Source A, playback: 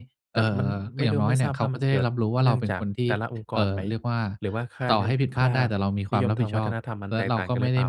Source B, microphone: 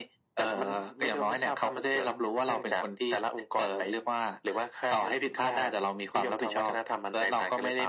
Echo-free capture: No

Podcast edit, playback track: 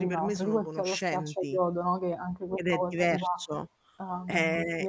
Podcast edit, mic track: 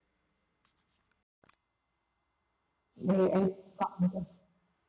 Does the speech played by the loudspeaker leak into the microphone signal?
No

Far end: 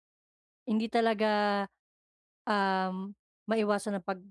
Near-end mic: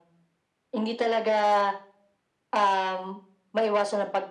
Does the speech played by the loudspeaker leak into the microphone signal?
Yes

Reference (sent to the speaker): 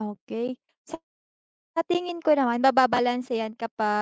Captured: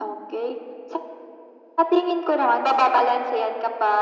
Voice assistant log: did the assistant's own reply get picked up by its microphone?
Yes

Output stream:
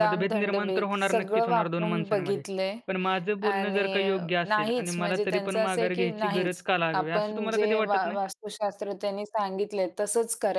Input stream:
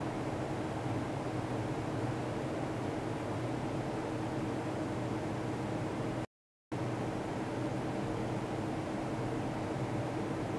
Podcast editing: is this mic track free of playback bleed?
Yes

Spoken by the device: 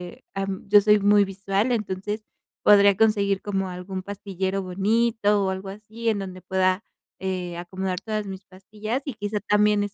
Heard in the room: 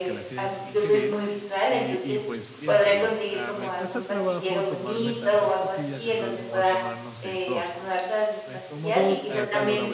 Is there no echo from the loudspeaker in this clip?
No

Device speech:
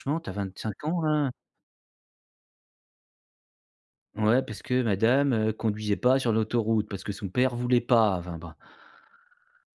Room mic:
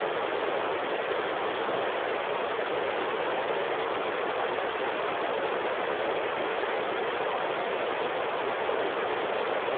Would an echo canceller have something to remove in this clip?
No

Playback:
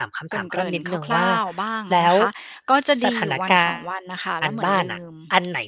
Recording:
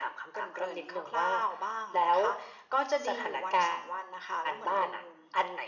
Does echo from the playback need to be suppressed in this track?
Yes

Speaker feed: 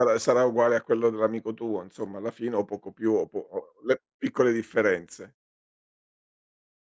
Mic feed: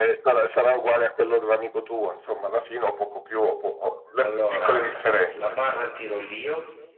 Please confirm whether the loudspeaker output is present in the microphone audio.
Yes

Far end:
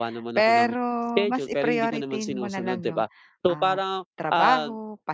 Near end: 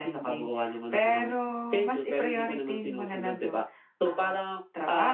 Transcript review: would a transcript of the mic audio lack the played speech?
No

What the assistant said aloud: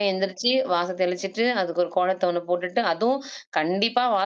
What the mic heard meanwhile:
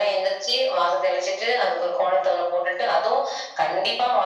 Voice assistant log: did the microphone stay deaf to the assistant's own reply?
No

